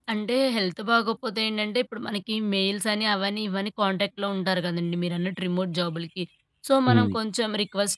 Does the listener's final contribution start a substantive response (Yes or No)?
No